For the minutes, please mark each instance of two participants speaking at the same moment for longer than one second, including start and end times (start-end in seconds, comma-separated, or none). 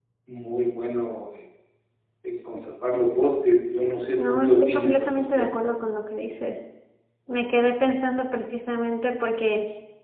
4.2-5.5